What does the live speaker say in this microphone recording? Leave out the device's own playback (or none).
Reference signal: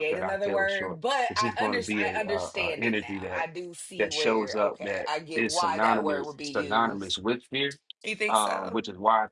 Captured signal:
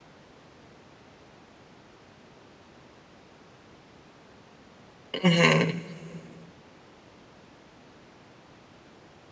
Mm-hmm.